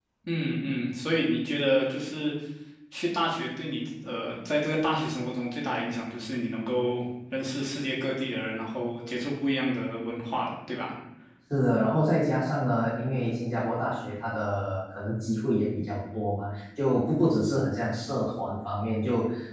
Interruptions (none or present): none